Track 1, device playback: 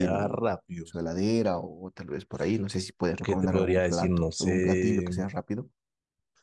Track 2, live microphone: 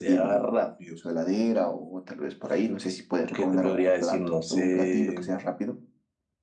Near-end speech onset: none

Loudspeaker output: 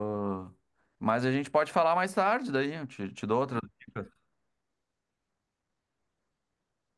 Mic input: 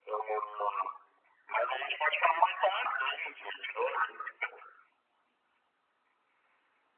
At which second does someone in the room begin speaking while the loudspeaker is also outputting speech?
none

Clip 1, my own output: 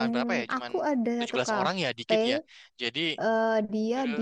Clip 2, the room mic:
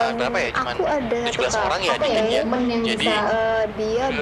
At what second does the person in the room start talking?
1.9 s

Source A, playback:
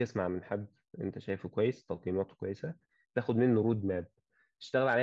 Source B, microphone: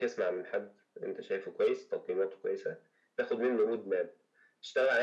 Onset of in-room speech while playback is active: none

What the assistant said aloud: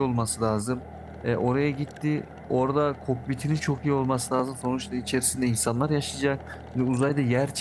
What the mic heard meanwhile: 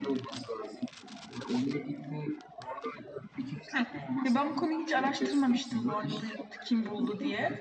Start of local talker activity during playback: 3.7 s

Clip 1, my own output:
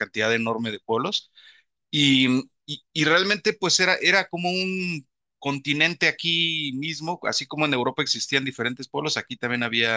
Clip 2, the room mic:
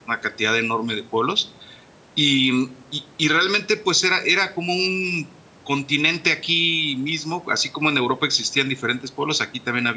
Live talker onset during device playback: none

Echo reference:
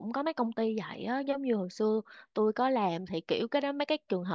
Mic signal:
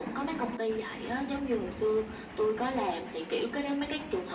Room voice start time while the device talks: none

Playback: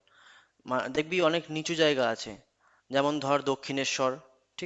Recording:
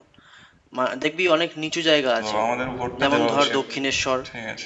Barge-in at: 2.2 s

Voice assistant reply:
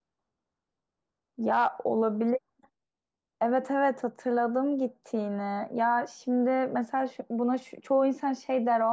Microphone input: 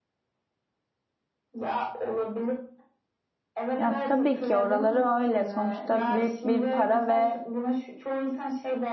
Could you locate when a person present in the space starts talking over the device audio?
3.8 s

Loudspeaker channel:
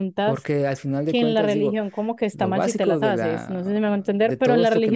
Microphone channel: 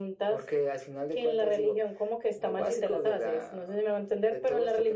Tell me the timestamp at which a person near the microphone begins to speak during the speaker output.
none

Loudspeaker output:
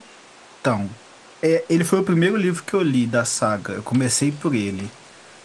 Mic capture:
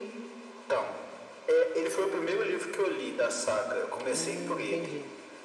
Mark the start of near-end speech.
4.1 s

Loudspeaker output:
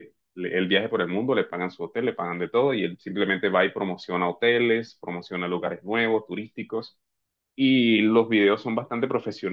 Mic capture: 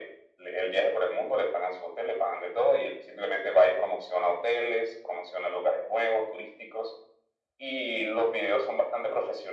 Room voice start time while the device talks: none

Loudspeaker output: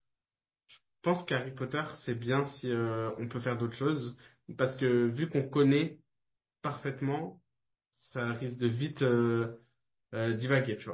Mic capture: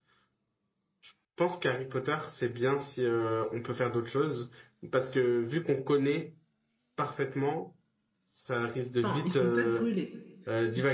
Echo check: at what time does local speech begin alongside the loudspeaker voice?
9.0 s

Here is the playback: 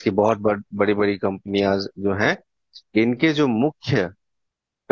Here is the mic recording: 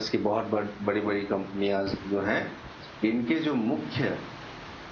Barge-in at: none

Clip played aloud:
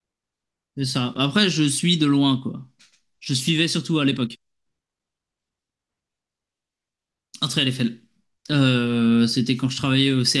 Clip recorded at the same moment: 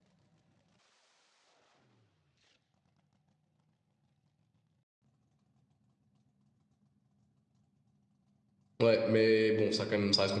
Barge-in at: 8.8 s

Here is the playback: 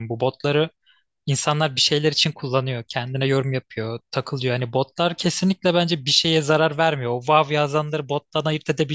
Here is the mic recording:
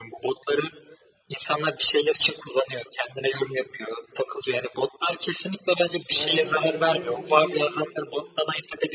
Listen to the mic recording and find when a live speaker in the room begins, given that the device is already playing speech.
6.2 s

